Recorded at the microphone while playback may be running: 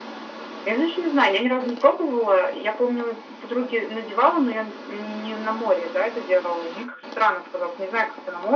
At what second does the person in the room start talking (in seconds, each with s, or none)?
none